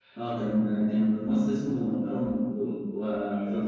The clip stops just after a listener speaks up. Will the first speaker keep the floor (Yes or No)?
Yes